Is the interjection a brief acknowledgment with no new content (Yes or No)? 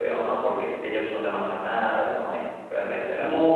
No